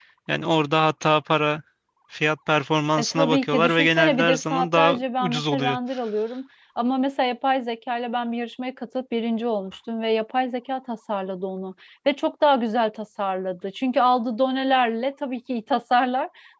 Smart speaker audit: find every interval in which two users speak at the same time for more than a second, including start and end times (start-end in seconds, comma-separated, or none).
3.0-5.8